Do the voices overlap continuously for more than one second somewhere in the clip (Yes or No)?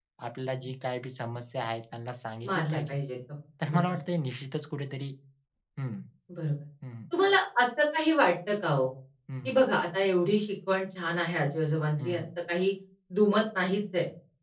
No